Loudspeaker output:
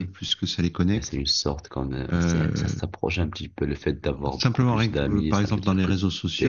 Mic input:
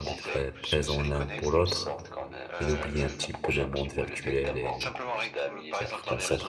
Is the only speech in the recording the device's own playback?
No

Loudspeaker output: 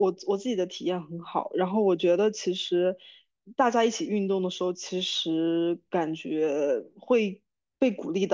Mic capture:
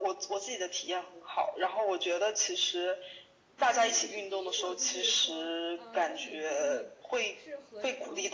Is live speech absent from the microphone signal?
No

